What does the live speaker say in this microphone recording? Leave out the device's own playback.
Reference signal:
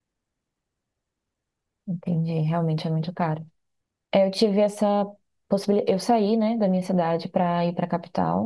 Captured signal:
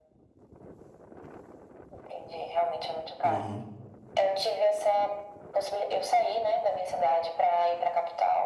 Uhum.

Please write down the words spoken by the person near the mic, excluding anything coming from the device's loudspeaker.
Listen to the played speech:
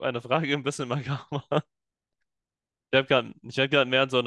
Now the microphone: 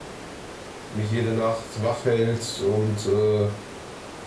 mich jede Nacht wach hält und äh,

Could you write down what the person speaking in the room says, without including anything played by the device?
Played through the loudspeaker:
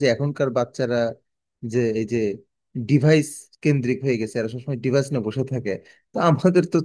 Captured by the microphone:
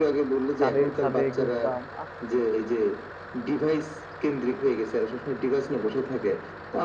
ছাদে ছাদে ঘুরতাম আহ

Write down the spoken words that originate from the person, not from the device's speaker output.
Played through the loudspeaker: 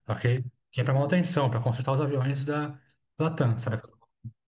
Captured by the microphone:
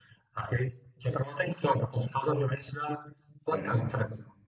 aham.

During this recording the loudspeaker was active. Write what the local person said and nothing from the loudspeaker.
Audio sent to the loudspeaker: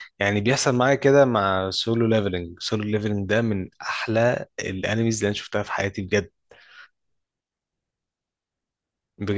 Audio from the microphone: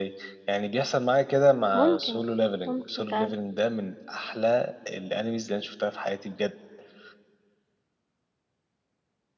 ممكن ممكن فعلا

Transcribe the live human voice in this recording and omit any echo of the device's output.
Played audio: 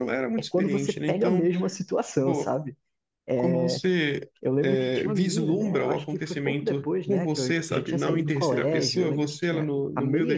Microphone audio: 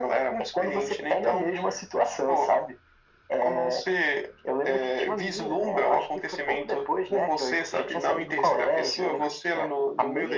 none

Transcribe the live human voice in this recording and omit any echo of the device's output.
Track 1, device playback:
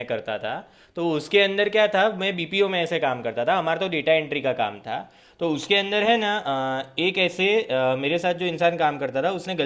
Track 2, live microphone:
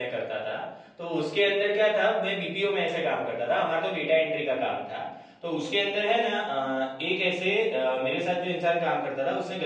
none

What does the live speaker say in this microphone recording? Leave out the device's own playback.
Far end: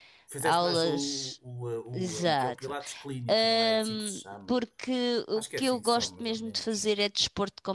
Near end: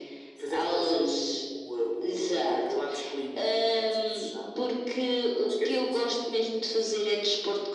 none

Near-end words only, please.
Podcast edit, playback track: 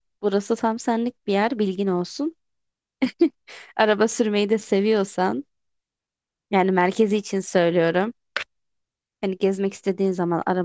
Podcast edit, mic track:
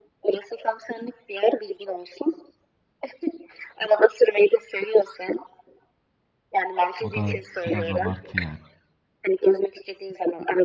O da biraz abartı yani.

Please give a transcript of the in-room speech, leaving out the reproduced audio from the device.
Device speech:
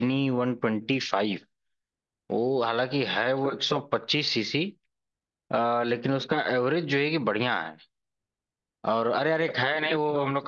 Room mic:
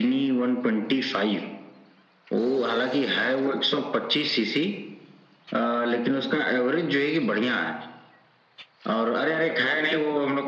none

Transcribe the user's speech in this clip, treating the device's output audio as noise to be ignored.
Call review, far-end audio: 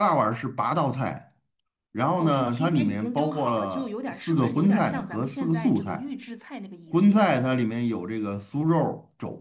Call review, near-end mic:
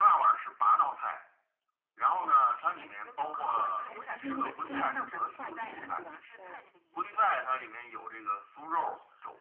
哇，还还是那个非物质文化遗产，对吧？哦，

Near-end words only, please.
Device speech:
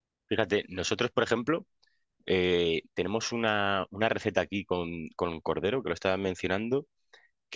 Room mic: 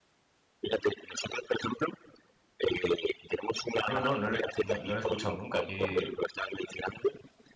No, no, no lo, no, no lo he escuchado nunca. ¿Qué,

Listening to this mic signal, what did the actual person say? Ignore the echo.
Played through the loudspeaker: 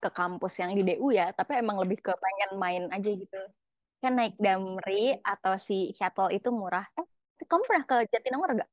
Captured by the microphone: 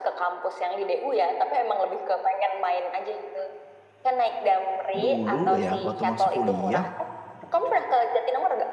dulu ya waktu masuk kuliah

